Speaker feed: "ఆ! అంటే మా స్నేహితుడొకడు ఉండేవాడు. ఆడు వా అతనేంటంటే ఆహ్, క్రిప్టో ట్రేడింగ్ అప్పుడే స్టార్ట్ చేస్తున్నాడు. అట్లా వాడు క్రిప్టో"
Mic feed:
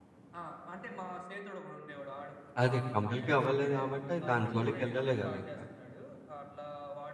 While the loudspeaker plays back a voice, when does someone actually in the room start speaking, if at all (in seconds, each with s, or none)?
2.6 s